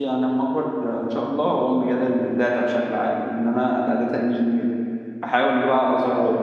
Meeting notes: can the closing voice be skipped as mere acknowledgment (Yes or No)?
Yes